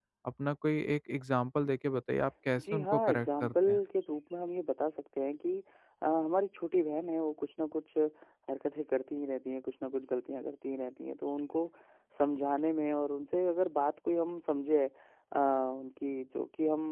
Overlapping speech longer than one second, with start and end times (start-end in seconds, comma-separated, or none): 2.6-3.8